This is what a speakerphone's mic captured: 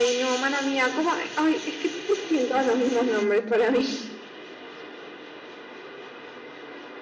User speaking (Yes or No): No